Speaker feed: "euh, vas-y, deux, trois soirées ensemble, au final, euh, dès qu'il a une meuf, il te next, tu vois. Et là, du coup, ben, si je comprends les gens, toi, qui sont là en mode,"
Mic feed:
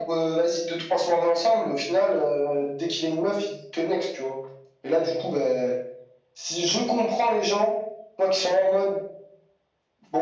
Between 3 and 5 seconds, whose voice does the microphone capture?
echo only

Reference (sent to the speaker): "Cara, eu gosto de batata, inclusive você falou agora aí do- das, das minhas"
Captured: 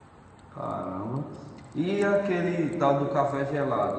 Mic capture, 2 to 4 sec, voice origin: user only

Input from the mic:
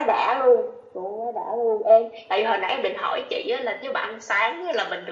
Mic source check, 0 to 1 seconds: echo only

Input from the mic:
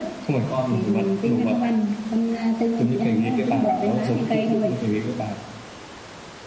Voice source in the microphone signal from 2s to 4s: echo only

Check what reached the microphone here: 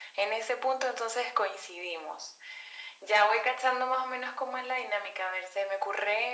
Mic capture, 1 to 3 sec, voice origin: echo only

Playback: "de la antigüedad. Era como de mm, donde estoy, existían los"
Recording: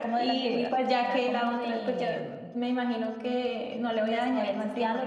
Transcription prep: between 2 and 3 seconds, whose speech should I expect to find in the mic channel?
both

